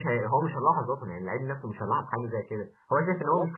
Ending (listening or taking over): taking over